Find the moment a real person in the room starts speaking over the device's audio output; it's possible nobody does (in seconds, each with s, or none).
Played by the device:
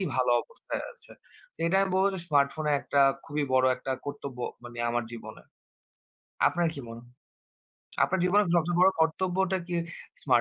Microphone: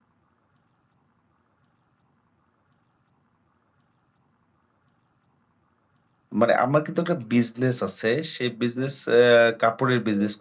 6.4 s